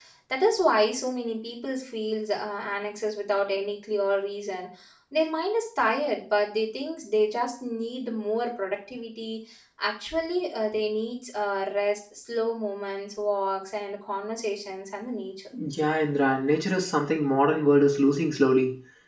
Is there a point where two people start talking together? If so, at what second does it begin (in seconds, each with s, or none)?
none